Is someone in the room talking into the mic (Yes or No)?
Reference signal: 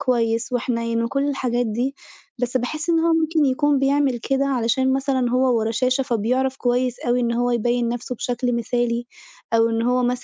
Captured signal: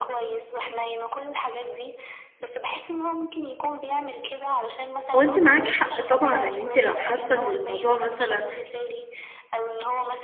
Yes